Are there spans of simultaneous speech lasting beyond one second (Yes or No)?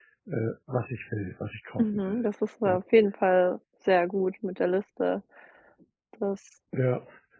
No